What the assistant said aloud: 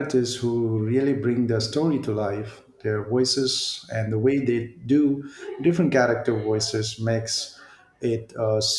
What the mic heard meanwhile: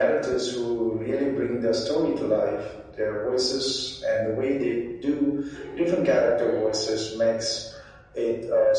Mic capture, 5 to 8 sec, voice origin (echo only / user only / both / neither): echo only